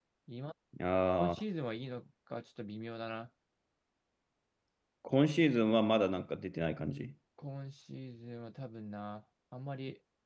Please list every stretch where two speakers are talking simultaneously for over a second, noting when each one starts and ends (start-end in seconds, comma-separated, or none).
none